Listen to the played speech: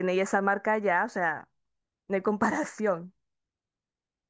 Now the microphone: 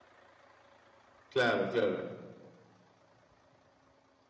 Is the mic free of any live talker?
No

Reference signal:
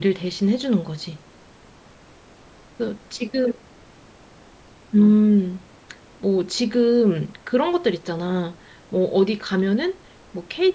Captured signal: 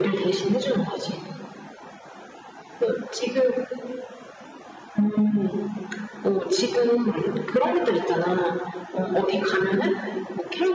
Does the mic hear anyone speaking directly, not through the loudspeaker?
No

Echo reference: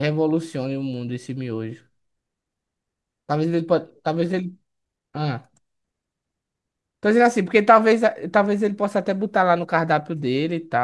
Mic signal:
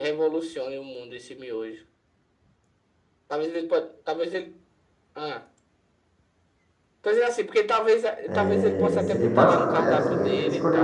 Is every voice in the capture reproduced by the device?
No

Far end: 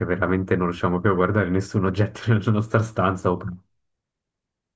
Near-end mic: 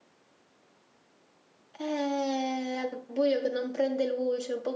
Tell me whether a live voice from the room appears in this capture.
Yes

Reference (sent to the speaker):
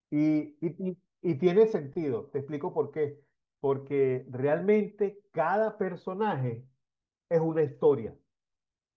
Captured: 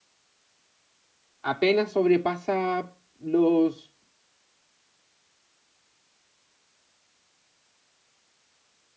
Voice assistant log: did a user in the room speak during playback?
Yes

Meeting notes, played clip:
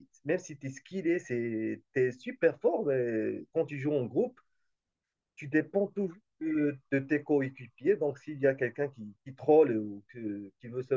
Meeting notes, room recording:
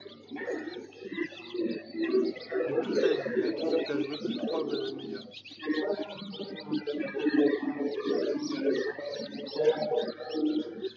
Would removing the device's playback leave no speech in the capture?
No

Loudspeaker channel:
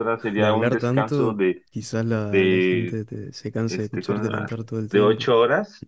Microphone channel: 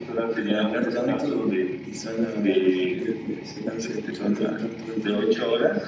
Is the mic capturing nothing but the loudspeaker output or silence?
Yes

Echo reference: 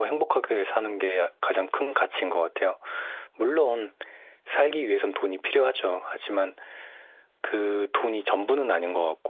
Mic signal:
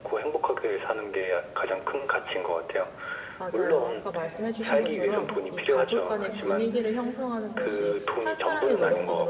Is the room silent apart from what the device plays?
No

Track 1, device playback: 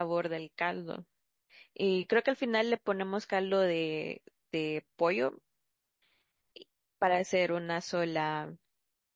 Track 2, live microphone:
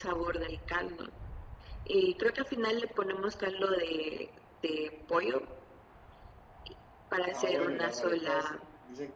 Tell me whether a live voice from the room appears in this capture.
Yes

